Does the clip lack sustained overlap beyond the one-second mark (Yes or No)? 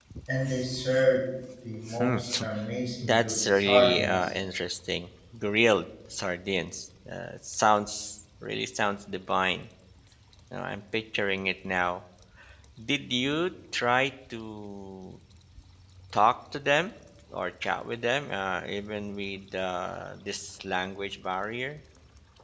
No